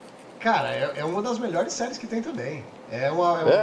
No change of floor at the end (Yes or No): Yes